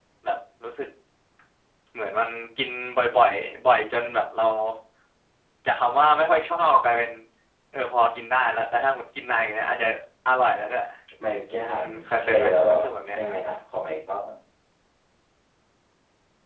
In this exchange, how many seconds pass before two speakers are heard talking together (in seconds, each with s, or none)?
11.7 s